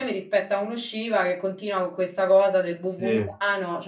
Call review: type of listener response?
listening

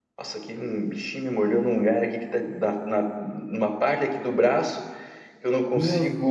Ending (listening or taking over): listening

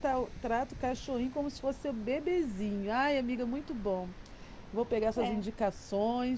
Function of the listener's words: listening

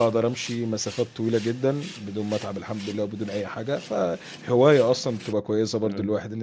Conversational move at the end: taking over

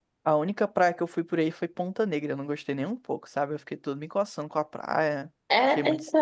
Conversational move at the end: taking over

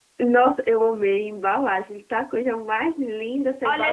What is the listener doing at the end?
taking over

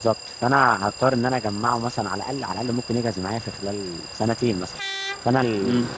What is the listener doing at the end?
listening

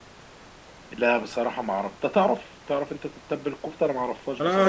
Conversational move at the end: taking over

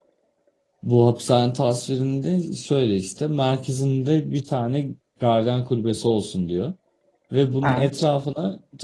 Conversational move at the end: listening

